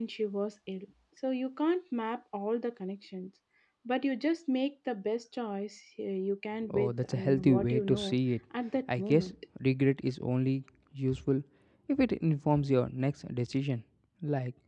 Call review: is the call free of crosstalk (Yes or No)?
No